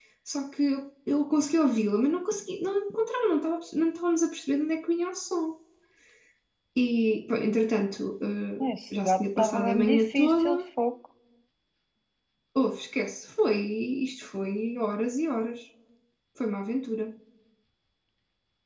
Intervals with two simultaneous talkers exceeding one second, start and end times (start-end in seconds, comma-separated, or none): 9.0-10.5